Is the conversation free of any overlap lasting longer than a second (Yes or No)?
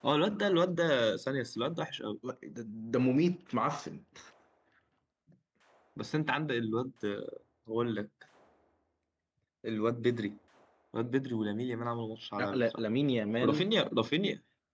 Yes